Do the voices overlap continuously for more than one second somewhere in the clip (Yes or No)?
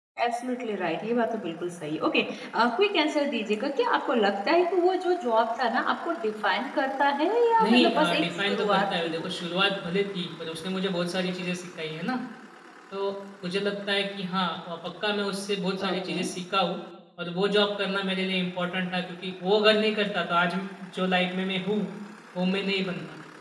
Yes